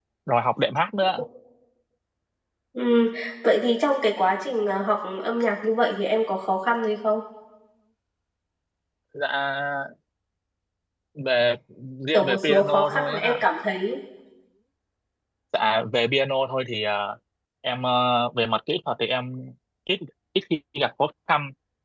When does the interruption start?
12.1 s

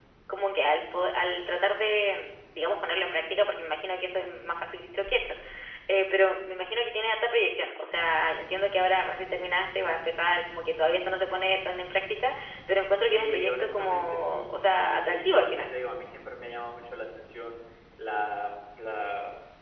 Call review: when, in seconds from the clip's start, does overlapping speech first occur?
13.0 s

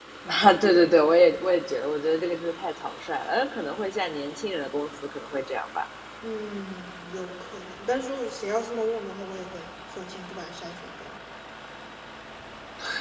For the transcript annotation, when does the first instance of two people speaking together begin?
none

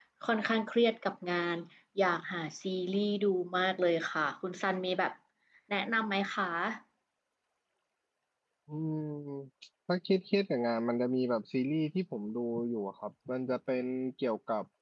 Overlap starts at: none

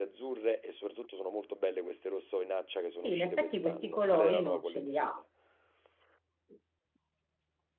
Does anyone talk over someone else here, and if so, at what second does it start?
3.0 s

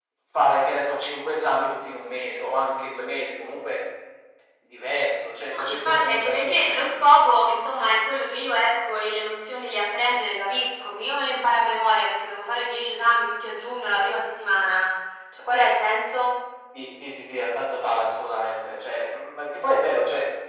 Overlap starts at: 5.5 s

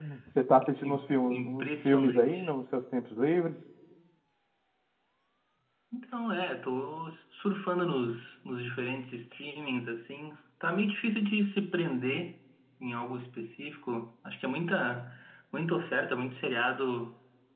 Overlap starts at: 0.8 s

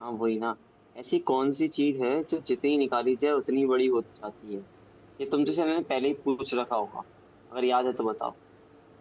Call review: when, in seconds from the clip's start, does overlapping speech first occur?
none

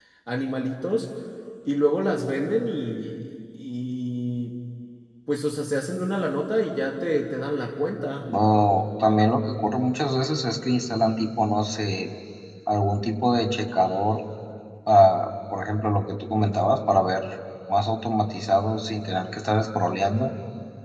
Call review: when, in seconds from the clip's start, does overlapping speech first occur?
none

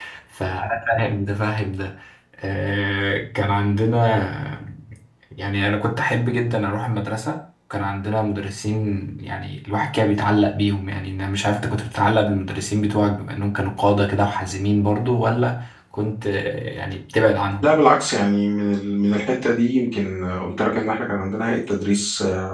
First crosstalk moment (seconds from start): none

